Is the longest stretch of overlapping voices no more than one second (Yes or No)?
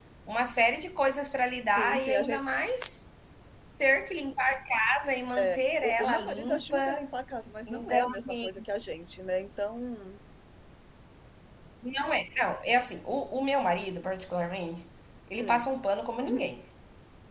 No